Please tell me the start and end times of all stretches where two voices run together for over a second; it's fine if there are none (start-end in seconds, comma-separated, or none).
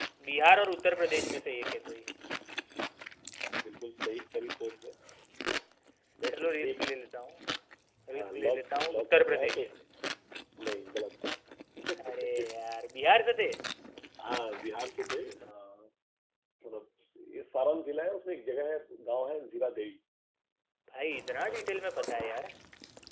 8.2-9.6